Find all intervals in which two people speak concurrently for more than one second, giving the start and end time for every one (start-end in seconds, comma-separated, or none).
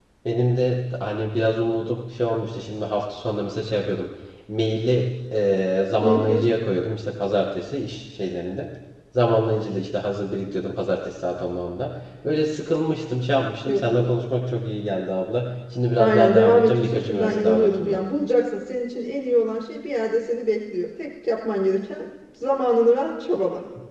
16.0-18.0